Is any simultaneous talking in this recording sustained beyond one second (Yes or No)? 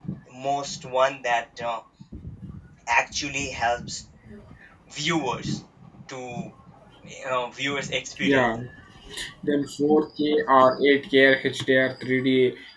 No